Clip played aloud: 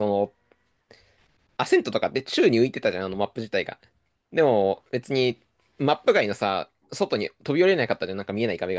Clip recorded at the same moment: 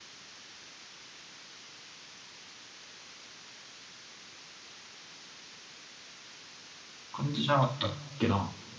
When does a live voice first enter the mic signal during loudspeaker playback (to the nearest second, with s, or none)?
7 s